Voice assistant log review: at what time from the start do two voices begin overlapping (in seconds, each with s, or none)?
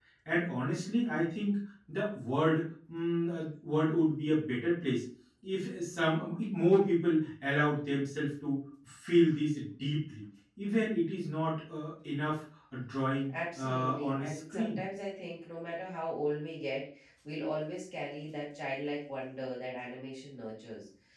13.6 s